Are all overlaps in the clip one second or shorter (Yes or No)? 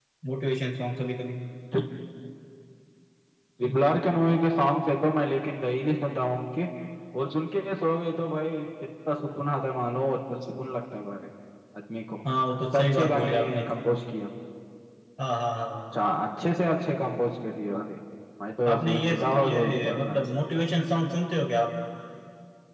No